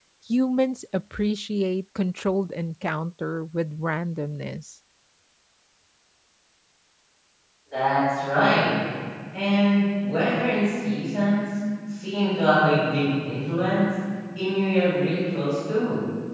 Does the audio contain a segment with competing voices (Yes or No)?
No